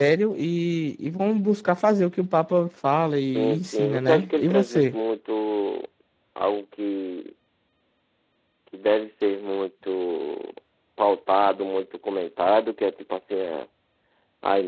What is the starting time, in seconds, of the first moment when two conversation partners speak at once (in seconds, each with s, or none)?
3.3 s